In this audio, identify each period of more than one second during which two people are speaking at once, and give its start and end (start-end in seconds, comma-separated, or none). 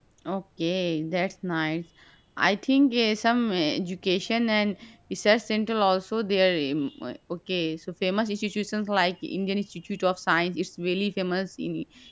none